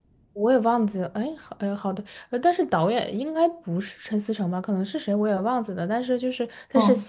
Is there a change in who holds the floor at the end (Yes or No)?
No